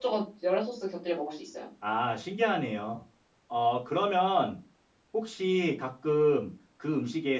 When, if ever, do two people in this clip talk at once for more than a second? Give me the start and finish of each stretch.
none

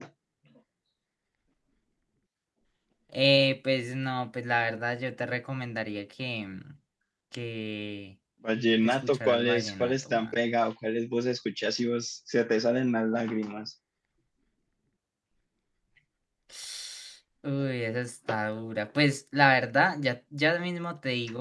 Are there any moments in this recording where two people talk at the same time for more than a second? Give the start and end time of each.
8.8-10.4

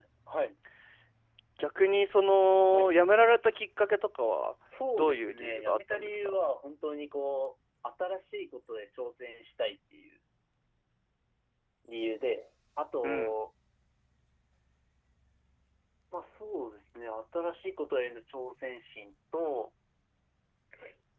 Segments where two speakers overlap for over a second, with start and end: 5.0-6.4

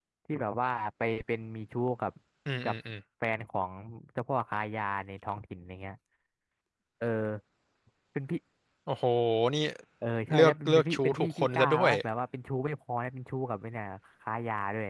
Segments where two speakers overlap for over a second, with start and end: 10.3-11.9

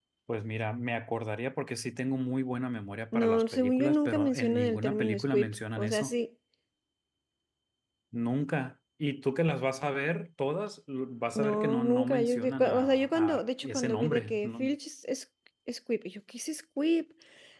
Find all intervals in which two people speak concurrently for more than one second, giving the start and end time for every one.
3.1-6.1, 11.3-14.7

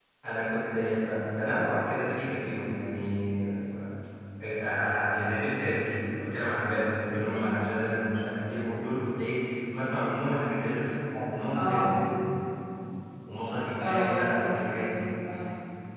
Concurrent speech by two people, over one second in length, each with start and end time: 13.8-15.0

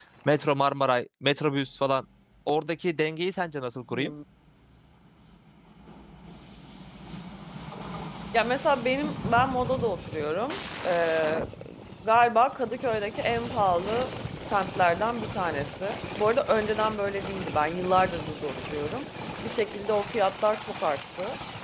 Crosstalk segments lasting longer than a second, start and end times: none

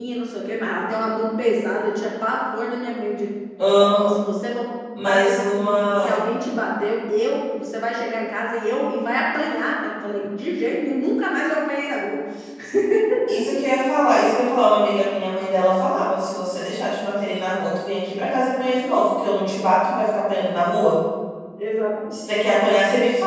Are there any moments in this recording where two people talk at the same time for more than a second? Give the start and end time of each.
5.0-6.3

